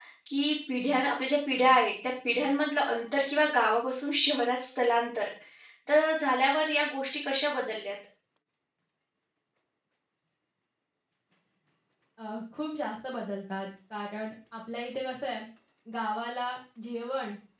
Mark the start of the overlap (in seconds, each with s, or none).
none